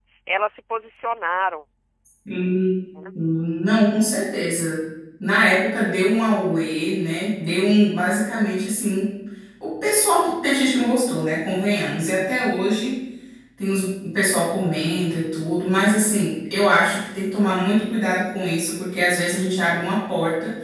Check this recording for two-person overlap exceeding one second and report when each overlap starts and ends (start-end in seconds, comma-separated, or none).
none